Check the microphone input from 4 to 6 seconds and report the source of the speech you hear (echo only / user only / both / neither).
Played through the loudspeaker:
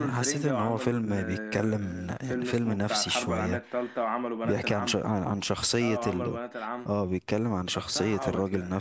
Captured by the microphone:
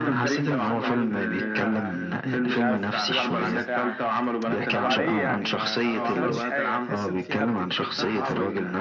both